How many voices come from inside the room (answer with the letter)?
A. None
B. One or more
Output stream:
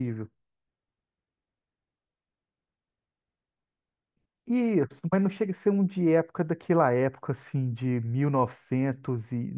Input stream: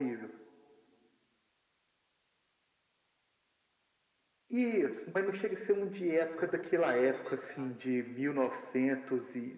B